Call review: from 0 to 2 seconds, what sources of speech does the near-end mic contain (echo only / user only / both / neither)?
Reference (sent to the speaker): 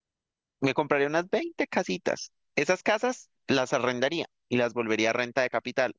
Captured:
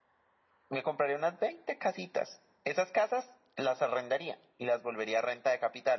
echo only